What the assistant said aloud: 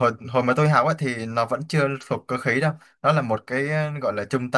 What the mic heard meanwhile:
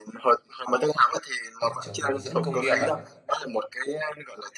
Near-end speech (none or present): present